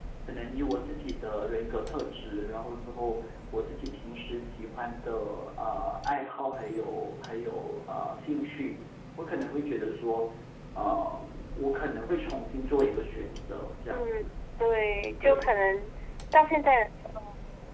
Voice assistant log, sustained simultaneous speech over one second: none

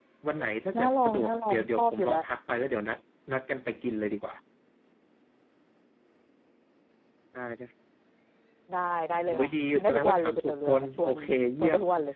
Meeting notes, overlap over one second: present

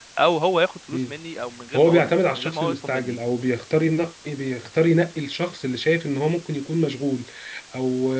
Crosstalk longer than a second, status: present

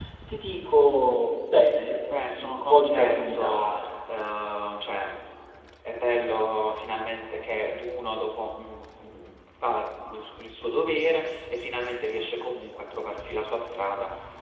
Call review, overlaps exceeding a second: present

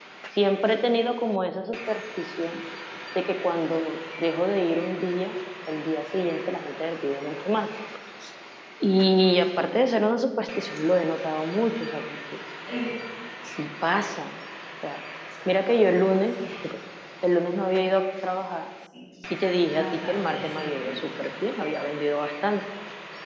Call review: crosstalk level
present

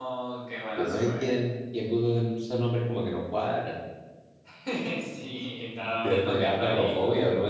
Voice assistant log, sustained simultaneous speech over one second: present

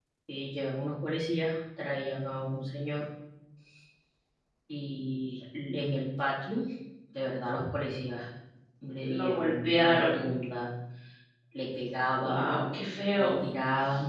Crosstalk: present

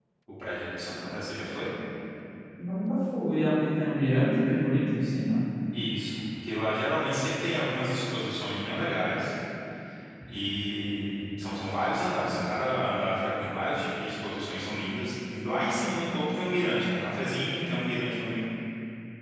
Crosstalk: none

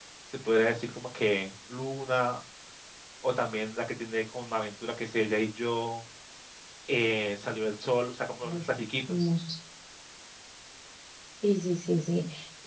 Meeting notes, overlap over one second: none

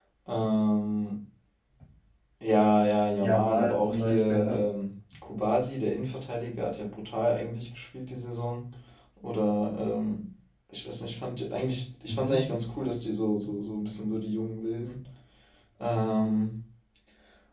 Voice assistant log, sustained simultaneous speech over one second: present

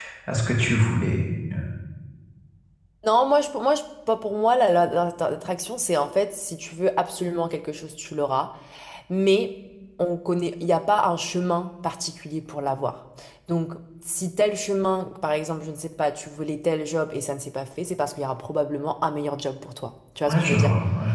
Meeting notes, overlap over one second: none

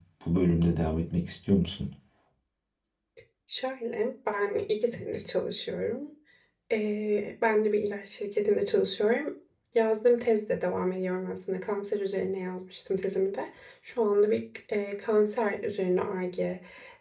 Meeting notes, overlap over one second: none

